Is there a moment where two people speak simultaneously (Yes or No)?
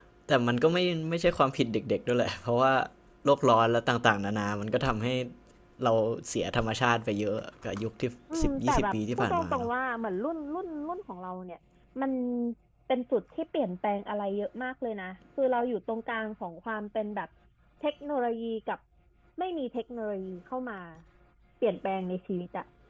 Yes